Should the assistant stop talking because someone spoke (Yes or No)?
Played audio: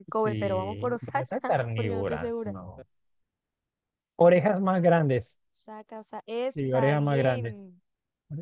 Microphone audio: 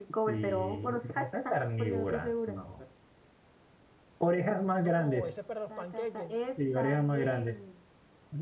Yes